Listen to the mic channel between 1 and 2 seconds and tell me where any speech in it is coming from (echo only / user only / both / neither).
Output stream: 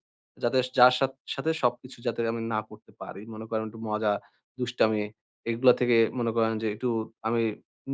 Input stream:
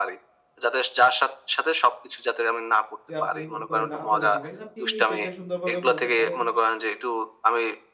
echo only